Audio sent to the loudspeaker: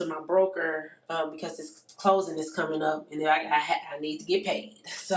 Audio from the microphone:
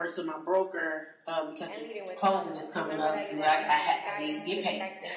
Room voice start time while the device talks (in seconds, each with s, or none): 1.7 s